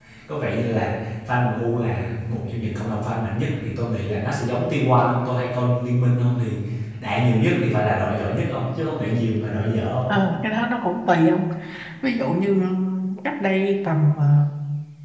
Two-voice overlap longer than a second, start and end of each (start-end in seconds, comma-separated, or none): none